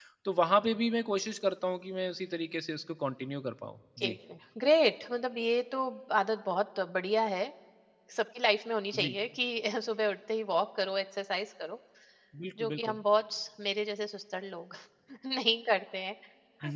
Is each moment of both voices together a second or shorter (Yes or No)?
Yes